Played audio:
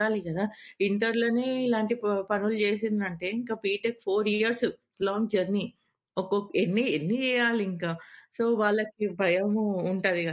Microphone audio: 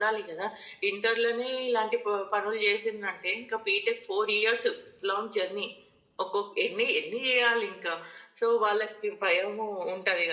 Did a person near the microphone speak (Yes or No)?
No